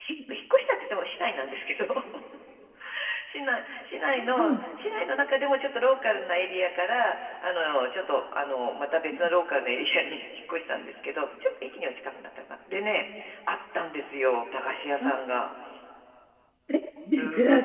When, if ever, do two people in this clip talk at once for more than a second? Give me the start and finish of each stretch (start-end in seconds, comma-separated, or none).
none